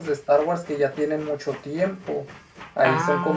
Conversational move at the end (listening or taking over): listening